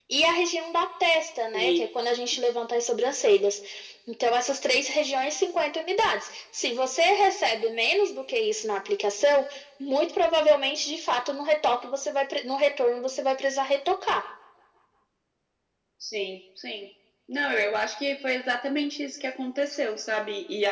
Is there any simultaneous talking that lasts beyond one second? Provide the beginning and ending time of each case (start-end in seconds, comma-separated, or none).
none